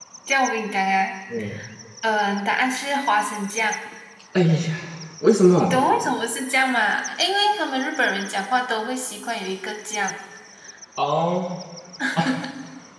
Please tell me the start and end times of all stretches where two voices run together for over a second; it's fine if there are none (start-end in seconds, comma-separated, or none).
none